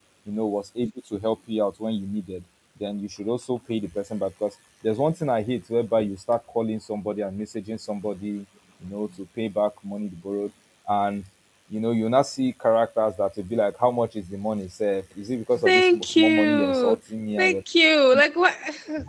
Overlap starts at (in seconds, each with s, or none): 15.6 s